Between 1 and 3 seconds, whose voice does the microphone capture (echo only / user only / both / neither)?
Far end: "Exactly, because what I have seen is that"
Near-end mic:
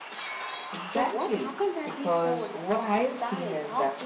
both